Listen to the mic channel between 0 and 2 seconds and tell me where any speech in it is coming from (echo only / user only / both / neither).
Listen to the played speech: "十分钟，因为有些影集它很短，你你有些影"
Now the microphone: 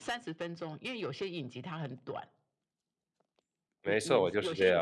echo only